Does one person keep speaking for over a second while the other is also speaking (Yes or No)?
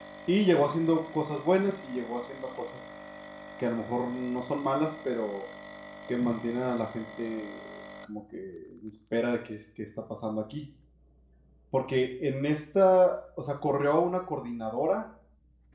No